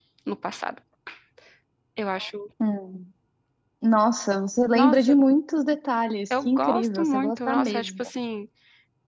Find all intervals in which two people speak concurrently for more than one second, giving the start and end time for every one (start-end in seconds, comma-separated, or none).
6.5-8.1